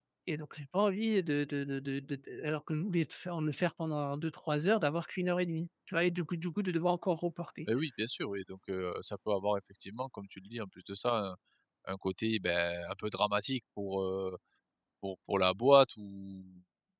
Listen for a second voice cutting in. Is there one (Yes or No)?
No